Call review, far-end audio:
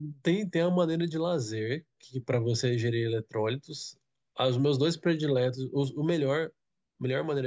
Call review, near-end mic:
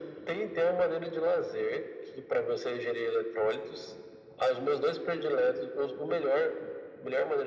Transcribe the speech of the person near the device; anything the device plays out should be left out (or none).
none